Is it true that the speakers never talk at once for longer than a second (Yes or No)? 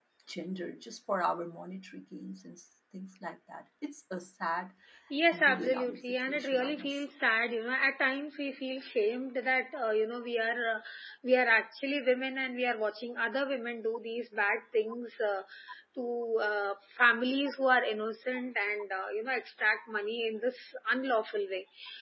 No